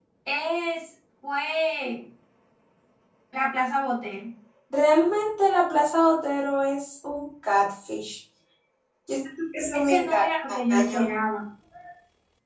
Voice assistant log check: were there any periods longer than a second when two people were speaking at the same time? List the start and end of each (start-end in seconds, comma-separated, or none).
9.7-11.1